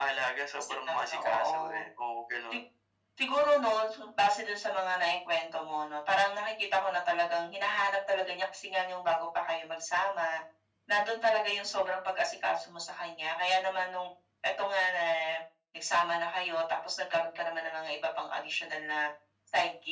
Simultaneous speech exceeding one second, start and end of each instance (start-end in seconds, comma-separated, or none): 0.6-1.8